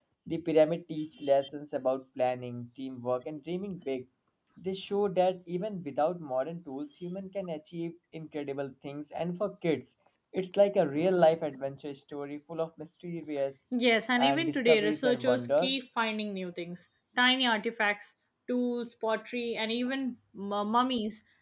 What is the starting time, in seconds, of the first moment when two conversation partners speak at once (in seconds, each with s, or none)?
14.2 s